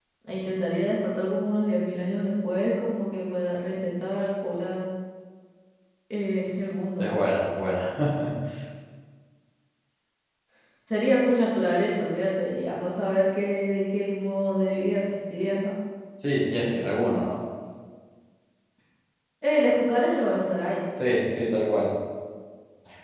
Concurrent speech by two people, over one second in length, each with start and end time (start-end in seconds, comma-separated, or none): none